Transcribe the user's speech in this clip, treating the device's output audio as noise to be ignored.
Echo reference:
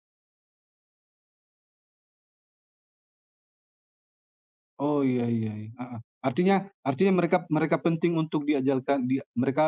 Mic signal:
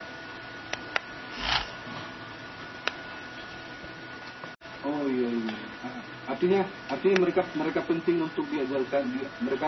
none

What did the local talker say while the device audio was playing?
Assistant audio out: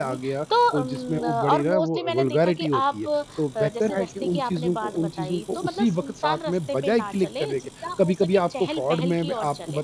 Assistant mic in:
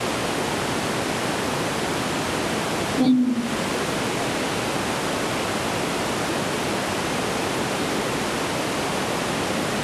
हुँ,

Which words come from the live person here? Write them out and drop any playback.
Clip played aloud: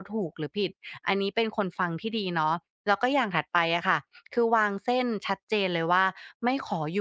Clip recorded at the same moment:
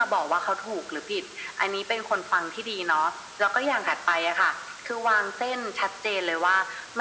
none

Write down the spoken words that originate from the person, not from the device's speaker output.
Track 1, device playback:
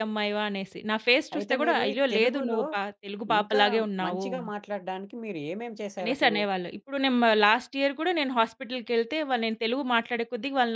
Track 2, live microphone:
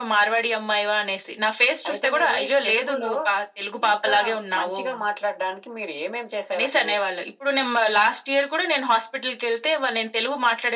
none

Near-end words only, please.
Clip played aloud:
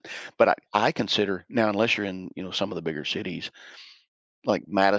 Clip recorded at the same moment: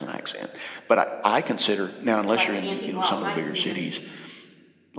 it's just like seeing people outside can be just

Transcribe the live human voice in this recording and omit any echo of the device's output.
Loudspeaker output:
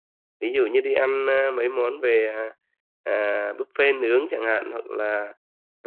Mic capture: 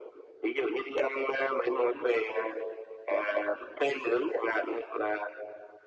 none

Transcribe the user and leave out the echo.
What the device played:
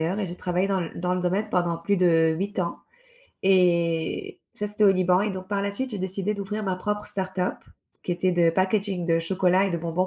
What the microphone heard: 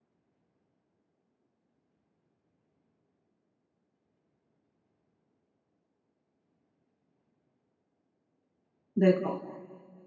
D'accord,

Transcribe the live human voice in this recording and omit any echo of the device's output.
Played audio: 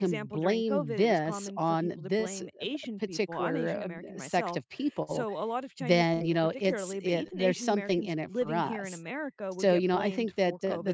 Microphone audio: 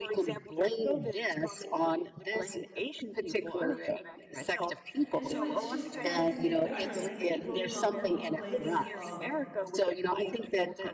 And so, it's just the kind of thing that I think will come from a place of,

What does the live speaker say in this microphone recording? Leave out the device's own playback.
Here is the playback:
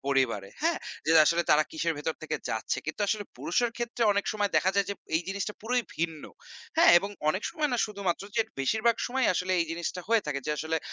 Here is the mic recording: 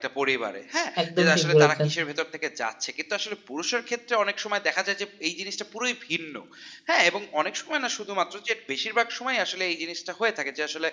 একদম ঠিক বলেছেন।

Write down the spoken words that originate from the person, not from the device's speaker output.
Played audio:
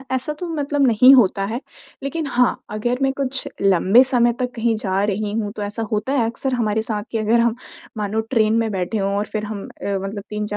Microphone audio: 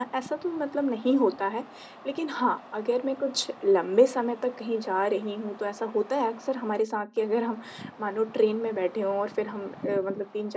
none

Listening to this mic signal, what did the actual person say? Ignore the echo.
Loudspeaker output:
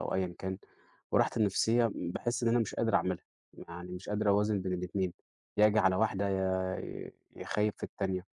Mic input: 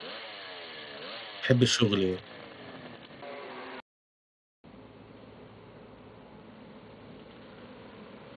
تحب الشغل

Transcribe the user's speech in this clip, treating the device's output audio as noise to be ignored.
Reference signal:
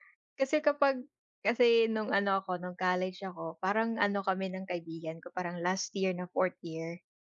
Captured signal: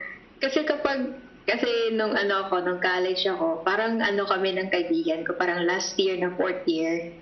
none

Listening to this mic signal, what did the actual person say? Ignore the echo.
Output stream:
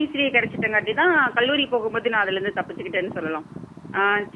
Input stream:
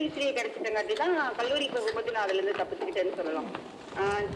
none

